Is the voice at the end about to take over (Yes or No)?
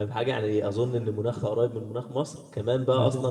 No